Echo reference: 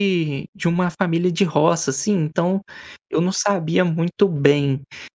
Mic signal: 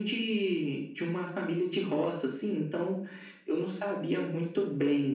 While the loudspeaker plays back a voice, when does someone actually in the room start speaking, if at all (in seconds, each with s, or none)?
none